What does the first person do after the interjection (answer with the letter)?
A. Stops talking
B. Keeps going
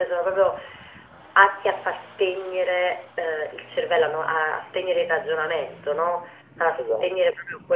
B